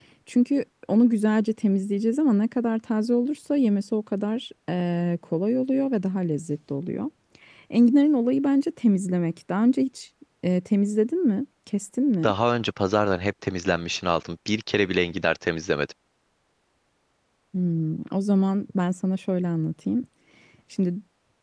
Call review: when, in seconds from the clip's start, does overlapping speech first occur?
none

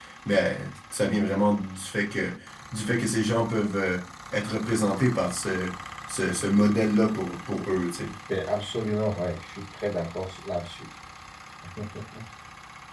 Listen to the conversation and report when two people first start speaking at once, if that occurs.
none

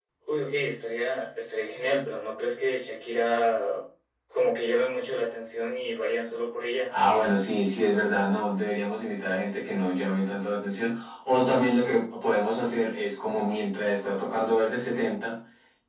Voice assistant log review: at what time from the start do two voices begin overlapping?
none

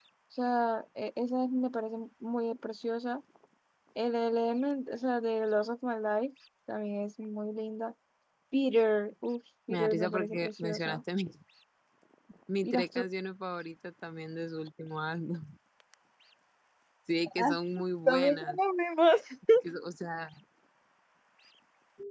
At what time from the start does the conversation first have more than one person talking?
10 s

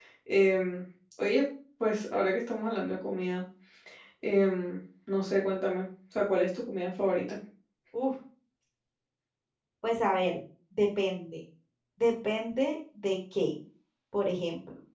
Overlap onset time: none

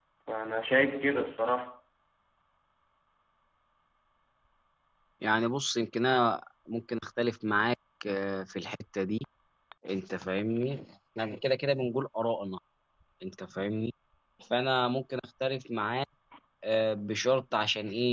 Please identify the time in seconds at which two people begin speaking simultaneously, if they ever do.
none

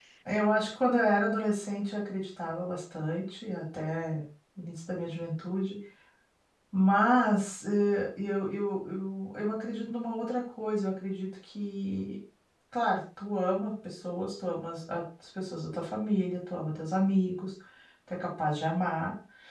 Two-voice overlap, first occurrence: none

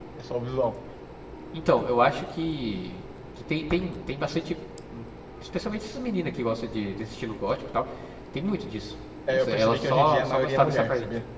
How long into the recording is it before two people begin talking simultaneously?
9 s

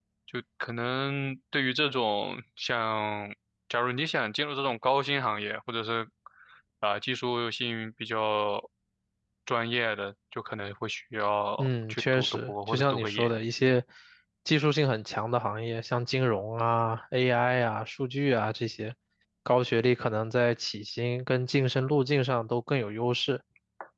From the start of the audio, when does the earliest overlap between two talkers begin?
12 s

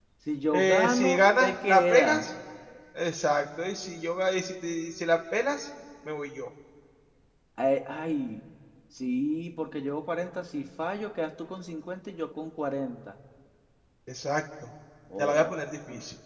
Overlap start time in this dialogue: 1 s

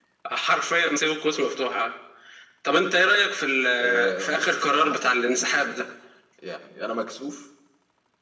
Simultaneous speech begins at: 4 s

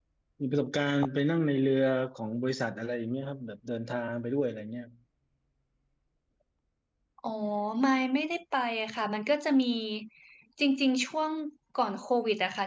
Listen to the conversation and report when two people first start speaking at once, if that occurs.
none

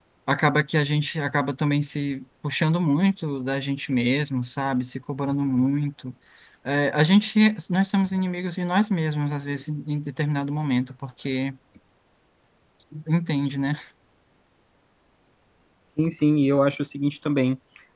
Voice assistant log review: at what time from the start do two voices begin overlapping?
none

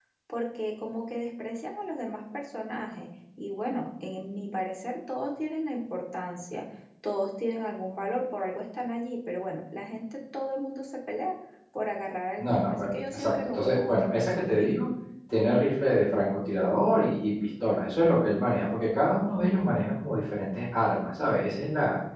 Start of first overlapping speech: 12 s

